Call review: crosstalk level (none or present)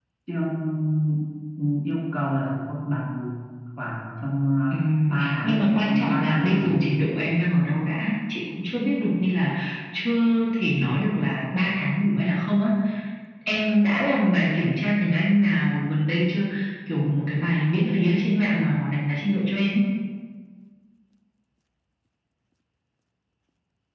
present